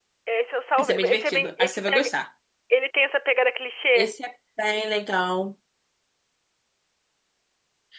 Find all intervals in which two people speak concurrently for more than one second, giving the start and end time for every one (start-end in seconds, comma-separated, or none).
0.8-2.1